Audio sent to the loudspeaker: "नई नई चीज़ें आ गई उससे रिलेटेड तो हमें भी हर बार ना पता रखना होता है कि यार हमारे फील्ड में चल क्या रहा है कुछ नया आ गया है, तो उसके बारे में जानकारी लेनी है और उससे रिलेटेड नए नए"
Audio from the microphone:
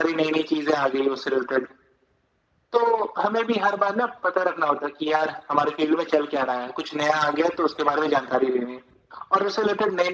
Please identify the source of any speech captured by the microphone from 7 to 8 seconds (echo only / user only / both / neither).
echo only